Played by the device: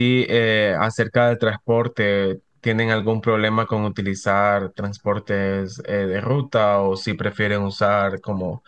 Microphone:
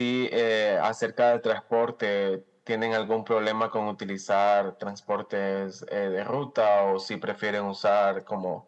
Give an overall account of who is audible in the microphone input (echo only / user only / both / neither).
echo only